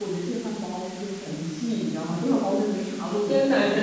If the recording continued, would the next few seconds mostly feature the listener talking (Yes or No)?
Yes